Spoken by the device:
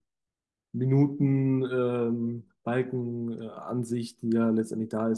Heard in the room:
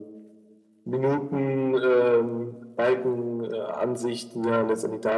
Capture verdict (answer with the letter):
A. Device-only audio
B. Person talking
A